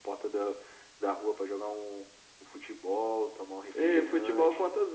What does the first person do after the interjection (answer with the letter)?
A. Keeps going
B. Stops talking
B